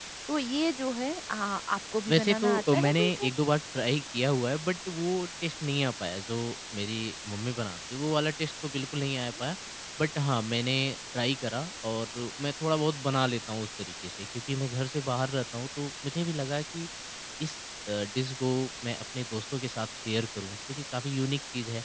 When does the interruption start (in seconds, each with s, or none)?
2.1 s